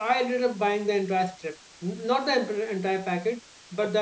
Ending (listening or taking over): listening